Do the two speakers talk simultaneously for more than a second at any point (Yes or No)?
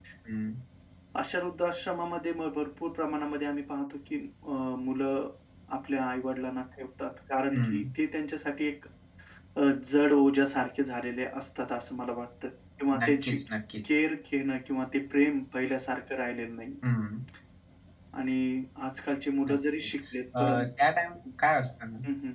No